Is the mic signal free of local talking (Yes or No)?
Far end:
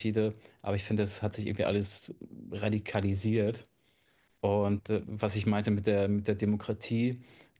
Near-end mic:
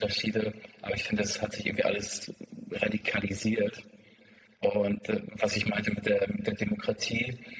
Yes